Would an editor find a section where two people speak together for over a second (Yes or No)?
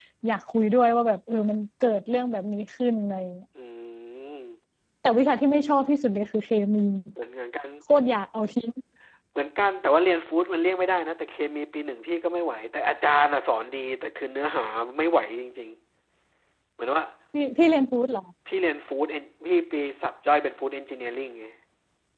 No